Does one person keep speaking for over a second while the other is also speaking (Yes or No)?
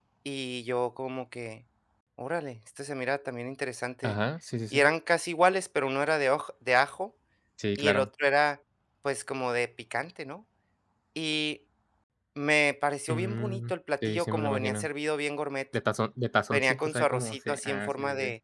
Yes